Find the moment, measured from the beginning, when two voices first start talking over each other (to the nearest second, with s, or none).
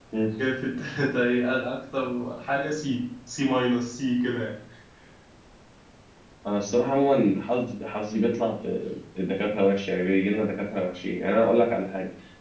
none